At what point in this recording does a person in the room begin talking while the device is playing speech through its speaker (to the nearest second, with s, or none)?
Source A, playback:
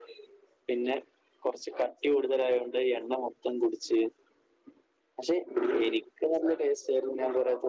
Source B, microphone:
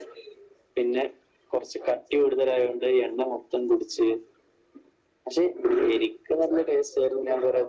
none